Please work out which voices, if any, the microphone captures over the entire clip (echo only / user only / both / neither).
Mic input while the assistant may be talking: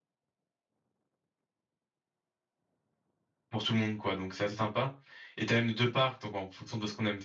user only